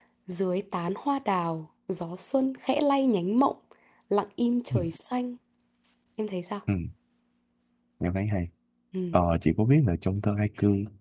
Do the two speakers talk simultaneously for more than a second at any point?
No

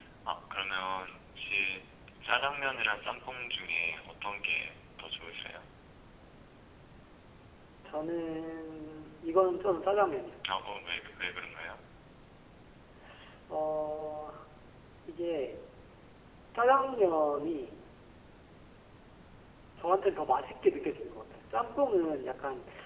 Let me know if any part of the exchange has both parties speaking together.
No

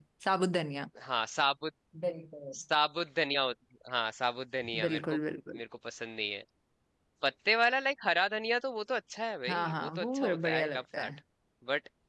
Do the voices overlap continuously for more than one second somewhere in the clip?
Yes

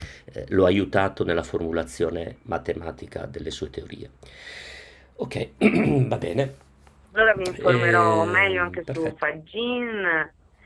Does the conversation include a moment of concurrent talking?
Yes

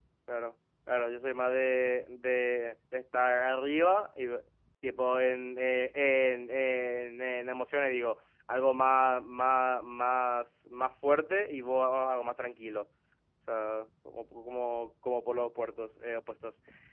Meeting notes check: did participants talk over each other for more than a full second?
No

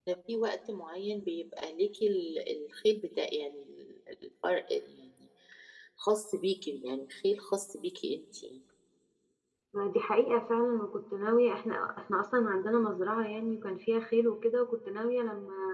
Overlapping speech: No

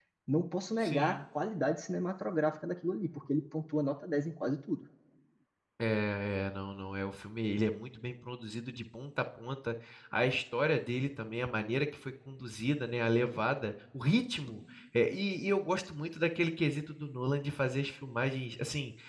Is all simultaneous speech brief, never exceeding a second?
Yes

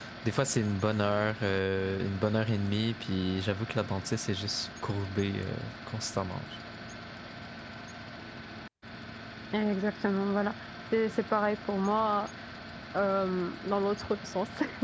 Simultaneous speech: No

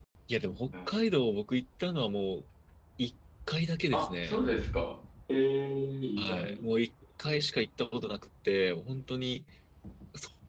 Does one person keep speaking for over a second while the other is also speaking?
No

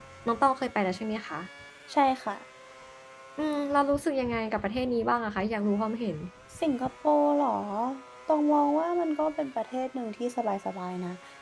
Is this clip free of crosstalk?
Yes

